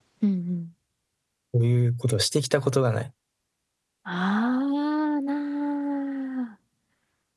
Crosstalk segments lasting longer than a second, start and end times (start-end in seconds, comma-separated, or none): none